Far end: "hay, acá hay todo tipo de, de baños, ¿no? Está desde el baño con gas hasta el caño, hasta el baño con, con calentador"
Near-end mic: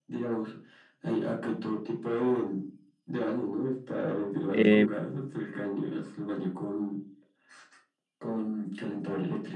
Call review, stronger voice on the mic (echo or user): user